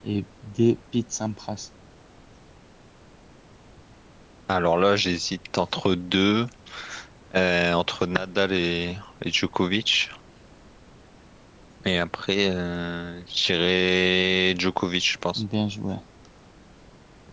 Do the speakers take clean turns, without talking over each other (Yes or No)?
Yes